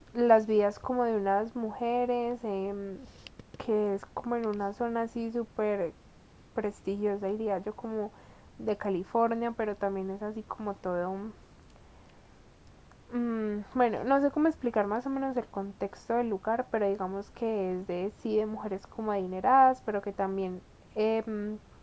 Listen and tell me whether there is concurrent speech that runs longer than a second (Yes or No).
No